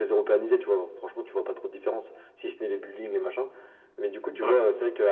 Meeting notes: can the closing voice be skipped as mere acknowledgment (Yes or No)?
Yes